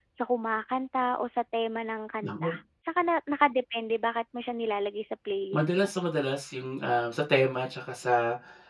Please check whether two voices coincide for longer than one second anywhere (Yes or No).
No